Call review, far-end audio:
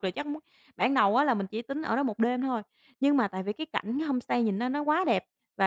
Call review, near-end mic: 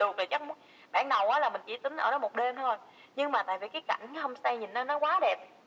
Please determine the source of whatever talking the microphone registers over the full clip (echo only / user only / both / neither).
echo only